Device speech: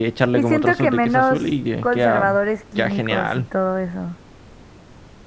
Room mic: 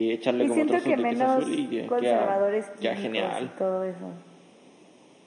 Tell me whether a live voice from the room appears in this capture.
No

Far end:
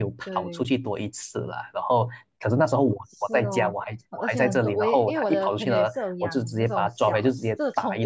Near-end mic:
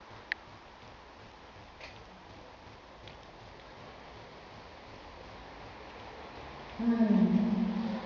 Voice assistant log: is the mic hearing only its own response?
No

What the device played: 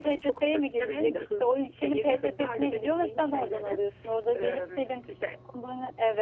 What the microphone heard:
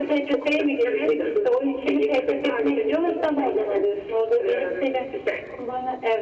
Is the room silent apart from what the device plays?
Yes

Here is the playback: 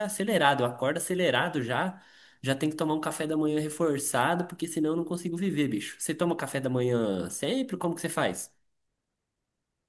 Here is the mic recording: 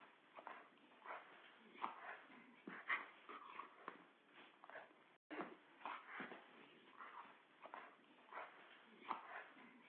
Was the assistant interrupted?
No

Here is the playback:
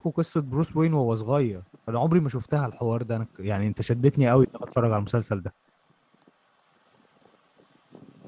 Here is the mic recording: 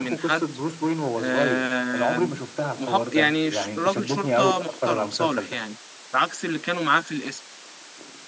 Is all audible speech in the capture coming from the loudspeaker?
No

